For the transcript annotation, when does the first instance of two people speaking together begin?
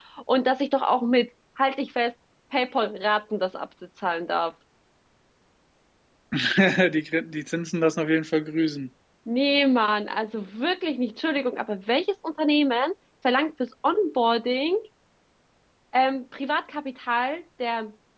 none

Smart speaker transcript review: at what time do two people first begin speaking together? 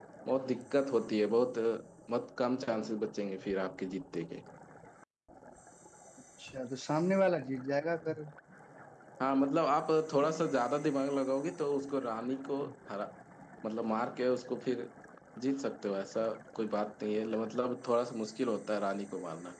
none

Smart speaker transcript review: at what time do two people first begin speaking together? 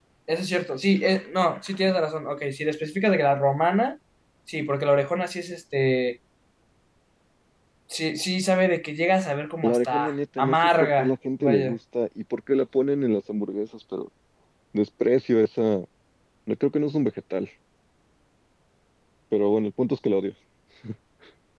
10 s

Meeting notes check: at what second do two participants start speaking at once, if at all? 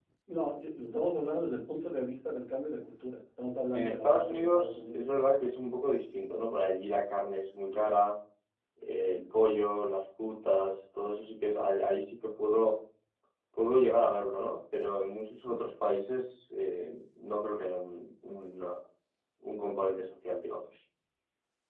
4 s

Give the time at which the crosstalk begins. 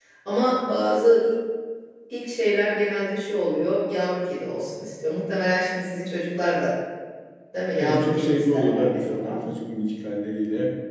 8 s

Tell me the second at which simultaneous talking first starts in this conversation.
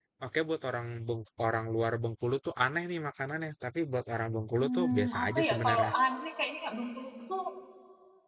5 s

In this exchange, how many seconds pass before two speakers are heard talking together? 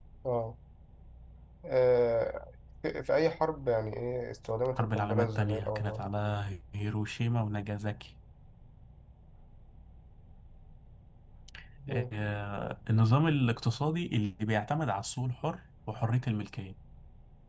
5 s

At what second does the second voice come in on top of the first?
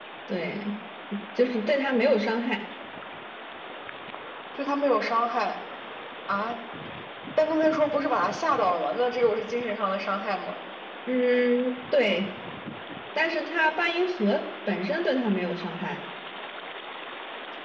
none

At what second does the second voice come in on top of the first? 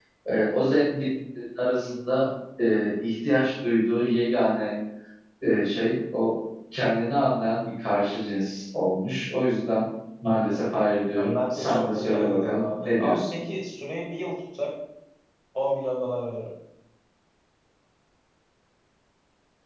11 s

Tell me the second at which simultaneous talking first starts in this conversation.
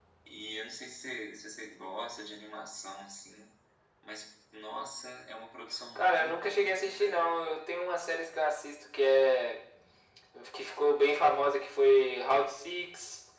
6 s

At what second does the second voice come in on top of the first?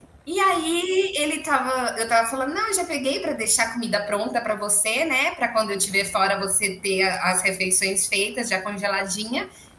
none

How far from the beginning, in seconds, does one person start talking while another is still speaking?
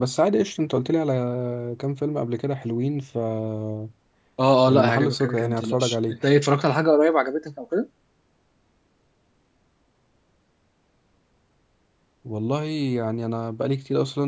5 s

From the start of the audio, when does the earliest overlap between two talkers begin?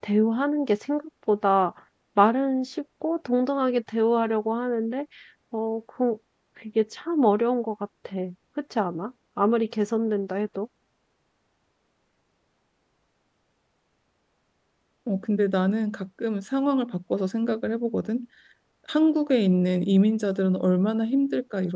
none

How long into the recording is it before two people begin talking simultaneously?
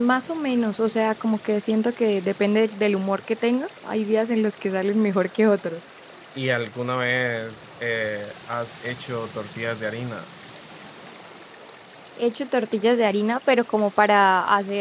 none

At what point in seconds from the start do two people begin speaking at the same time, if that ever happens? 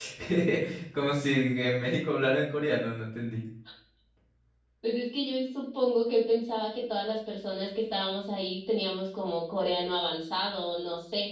none

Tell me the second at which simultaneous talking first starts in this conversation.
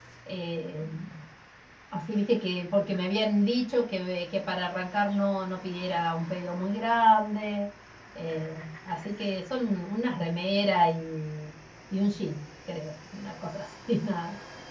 none

